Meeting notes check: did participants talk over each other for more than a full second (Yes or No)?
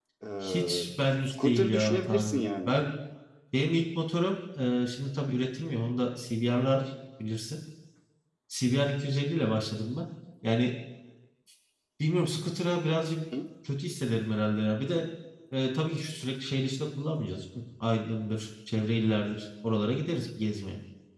Yes